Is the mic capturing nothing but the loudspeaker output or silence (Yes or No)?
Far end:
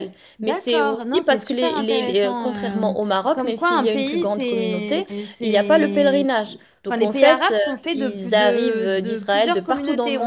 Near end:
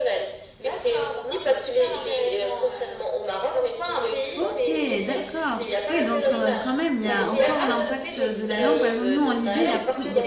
No